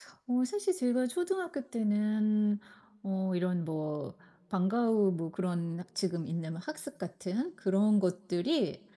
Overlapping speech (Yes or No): No